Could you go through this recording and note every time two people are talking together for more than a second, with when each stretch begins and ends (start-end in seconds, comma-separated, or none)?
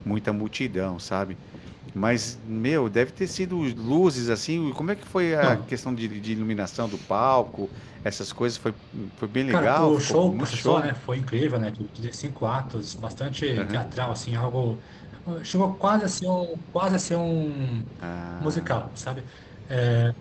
9.5-10.9